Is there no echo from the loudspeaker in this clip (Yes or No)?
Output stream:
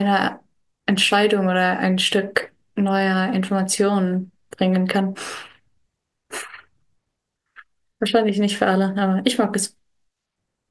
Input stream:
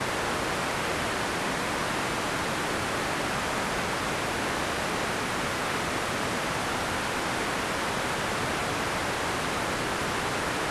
Yes